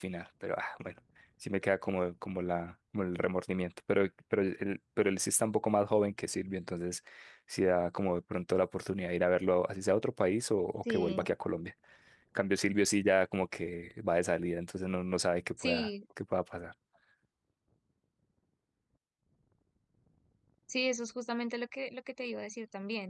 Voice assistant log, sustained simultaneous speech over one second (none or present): none